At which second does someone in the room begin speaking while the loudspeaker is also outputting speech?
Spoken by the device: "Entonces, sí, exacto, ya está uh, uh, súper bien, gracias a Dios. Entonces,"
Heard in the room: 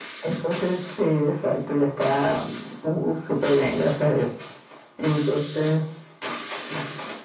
none

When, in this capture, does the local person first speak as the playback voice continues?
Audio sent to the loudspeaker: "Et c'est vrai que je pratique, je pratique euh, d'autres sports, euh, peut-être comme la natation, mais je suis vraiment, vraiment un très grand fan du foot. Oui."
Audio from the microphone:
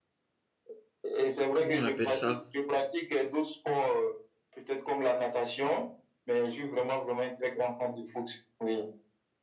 1.5 s

